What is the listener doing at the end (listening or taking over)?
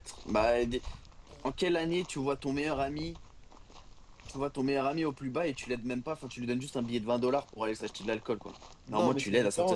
taking over